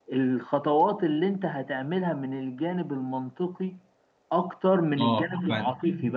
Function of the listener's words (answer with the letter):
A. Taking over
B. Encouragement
B